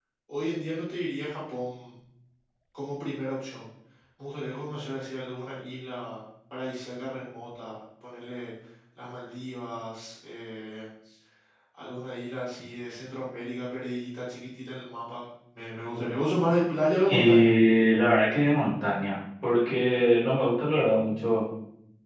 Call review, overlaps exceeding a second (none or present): none